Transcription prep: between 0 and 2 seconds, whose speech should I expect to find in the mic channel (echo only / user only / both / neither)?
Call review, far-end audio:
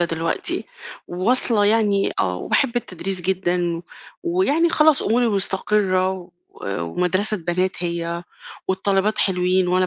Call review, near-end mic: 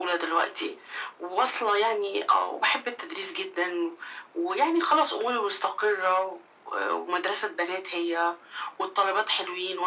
echo only